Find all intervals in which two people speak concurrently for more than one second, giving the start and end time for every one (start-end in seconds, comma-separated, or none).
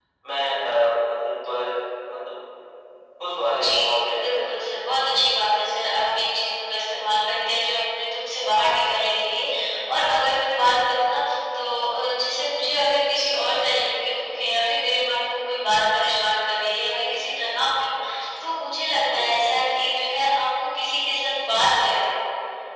3.5-5.1